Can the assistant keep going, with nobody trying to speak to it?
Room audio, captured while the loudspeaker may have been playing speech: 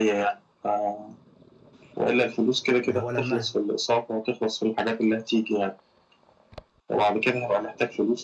No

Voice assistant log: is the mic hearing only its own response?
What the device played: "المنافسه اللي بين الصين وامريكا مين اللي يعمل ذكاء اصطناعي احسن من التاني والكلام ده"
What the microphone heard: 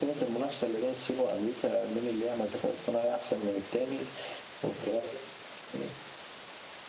Yes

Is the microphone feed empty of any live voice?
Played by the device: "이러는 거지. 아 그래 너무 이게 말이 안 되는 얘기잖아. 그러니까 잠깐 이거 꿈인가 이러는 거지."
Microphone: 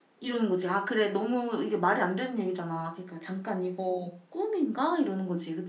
Yes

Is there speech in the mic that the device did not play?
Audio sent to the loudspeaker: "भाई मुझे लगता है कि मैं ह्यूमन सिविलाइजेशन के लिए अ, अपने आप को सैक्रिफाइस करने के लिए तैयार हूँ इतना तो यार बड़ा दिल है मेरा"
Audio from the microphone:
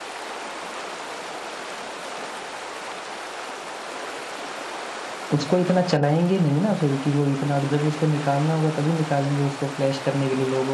Yes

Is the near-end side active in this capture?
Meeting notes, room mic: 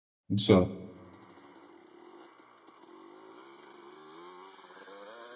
Yes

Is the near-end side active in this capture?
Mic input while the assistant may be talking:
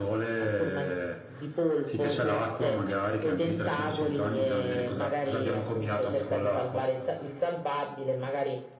No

